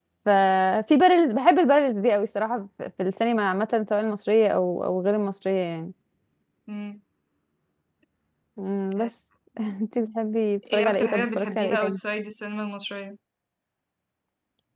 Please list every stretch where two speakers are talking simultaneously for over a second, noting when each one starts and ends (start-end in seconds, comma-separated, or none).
10.7-12.0